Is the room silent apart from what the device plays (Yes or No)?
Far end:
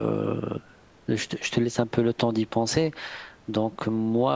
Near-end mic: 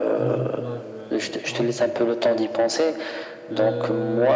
No